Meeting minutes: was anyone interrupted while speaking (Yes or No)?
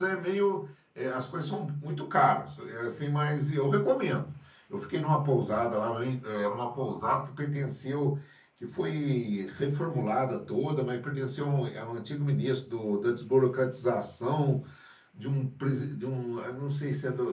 No